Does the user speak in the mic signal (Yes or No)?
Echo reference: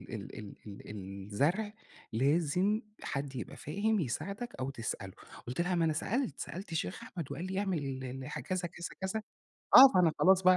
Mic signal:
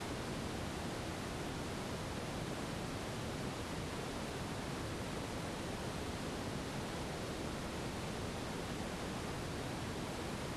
No